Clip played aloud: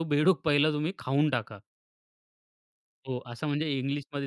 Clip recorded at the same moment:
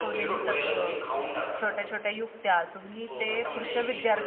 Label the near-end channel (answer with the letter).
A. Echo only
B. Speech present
B